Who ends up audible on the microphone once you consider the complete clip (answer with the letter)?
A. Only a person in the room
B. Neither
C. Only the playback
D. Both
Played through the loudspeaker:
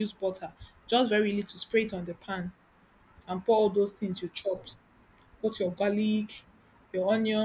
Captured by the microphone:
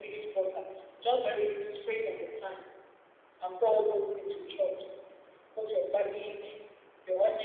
C